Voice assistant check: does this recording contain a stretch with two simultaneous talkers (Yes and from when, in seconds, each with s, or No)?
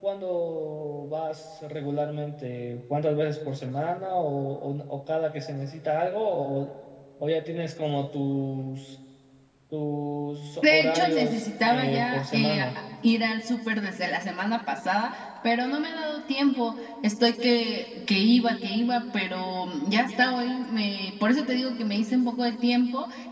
Yes, from 10.6 s